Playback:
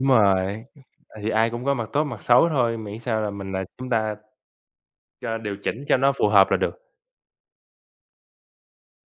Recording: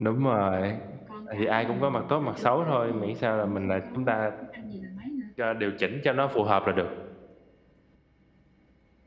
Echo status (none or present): present